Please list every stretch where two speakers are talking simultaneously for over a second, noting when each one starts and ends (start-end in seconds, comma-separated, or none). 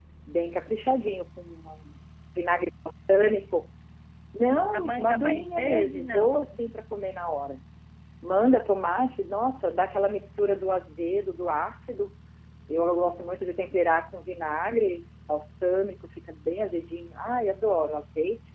4.7-6.5